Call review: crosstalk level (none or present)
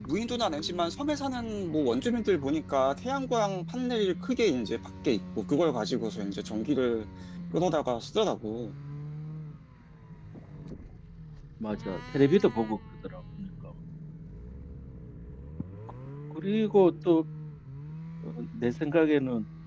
none